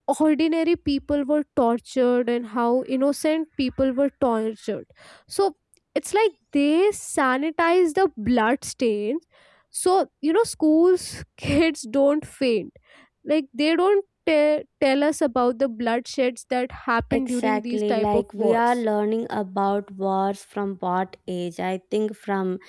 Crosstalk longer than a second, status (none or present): present